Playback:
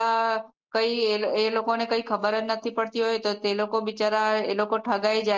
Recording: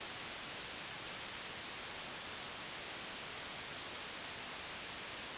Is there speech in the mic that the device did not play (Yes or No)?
No